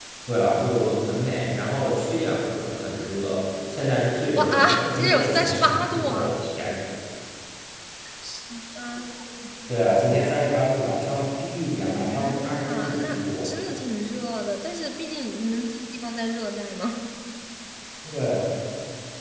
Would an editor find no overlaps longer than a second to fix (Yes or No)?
No